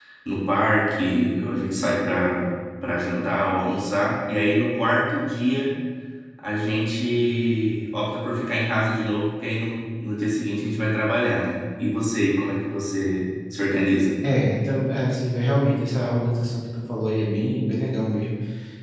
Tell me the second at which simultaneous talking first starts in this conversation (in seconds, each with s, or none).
none